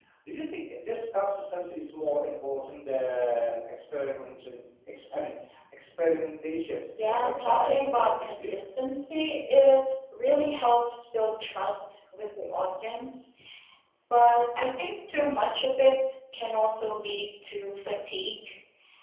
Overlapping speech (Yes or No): Yes